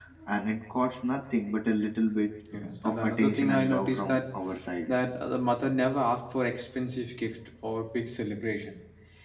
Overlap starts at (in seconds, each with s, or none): 2.8 s